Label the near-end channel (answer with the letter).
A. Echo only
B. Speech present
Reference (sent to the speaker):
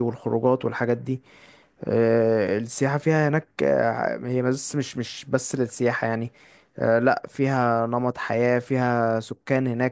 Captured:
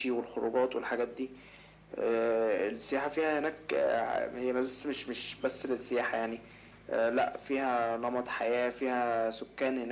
A